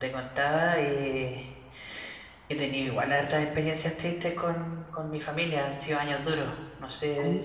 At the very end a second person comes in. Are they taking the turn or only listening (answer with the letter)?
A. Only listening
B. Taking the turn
B